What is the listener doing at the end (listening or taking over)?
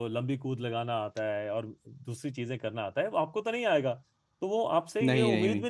listening